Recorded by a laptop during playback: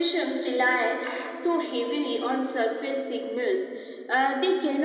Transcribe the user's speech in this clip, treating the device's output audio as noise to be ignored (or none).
none